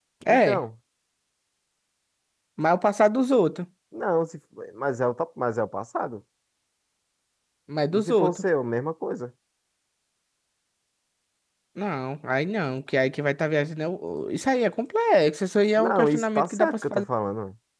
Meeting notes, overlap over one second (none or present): present